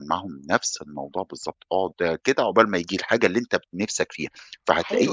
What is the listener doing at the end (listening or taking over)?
taking over